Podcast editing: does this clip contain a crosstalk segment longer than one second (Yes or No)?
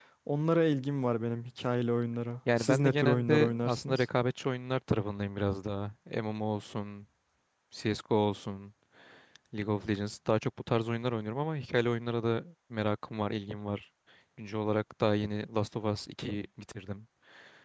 Yes